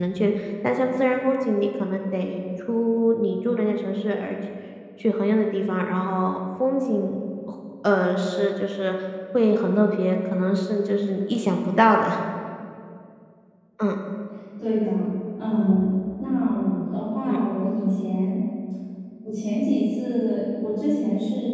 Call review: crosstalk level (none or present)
none